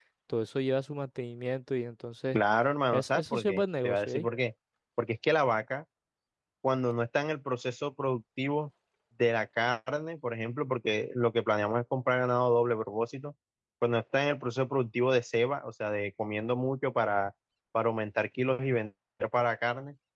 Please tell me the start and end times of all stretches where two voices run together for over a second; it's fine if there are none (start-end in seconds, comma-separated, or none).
2.9-4.3